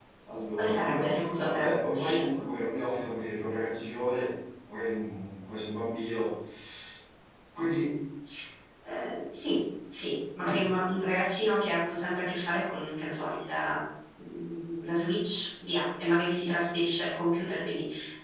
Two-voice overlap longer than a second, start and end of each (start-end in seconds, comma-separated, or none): 0.5-2.2